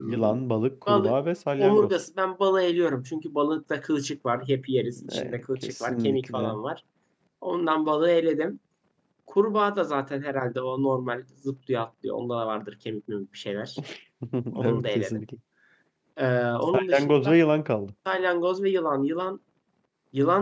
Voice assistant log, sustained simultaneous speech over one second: present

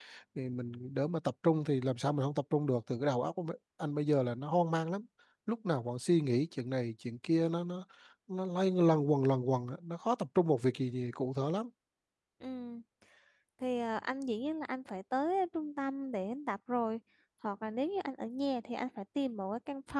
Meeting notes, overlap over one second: none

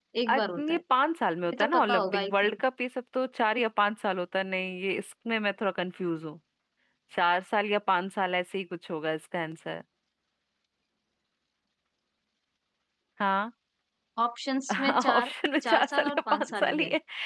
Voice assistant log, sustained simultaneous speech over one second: present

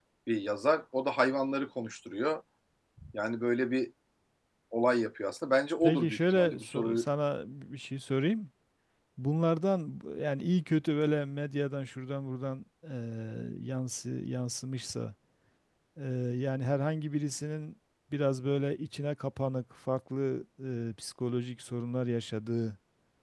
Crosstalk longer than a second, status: present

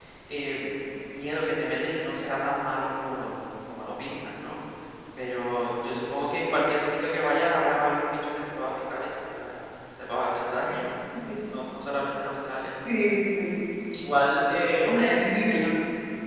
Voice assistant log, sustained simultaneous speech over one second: none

